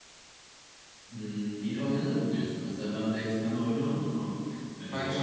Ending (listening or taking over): listening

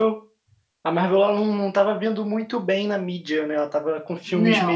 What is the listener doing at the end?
listening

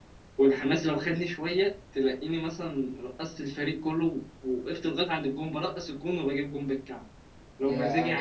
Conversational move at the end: taking over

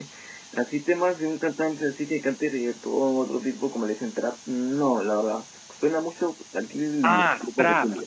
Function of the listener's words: taking over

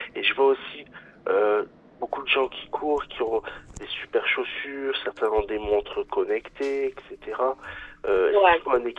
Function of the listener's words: listening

